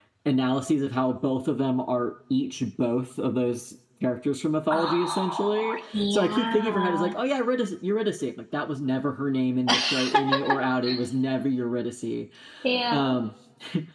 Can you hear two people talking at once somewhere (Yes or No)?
Yes